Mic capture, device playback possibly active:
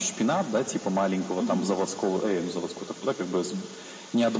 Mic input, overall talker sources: both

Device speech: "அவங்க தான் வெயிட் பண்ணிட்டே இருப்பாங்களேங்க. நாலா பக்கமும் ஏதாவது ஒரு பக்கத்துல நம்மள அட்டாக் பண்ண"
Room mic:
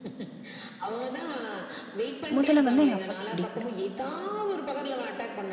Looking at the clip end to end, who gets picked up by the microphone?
both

